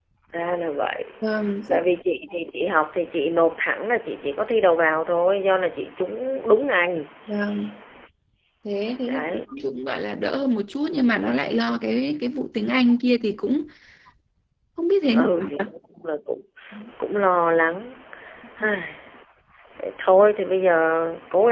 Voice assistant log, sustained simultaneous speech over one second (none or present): none